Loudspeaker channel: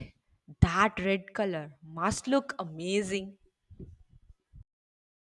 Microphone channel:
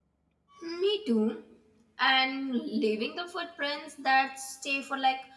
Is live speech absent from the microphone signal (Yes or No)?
No